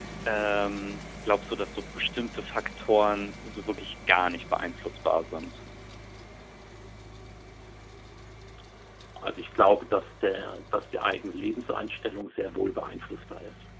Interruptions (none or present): none